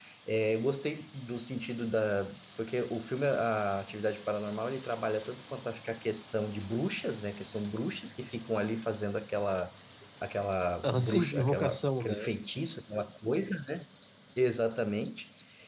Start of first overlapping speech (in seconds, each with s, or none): 10.8 s